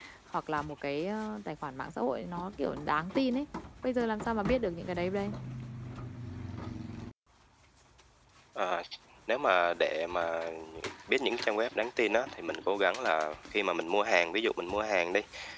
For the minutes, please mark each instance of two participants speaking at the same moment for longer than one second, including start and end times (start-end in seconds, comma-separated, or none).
none